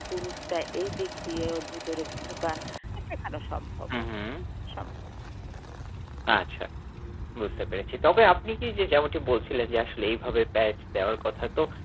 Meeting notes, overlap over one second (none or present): none